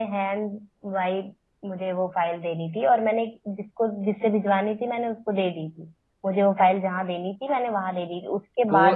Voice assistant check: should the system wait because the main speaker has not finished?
No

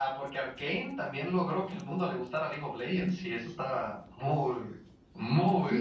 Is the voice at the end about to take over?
Yes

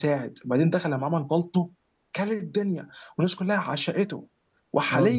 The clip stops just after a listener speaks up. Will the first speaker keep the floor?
Yes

